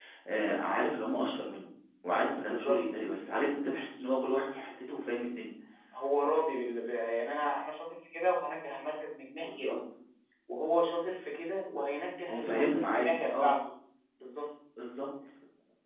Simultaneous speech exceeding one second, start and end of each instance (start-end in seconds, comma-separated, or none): 12.3-13.6